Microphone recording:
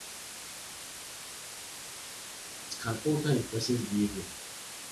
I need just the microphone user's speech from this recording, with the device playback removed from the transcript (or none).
it can alter a person's behavior.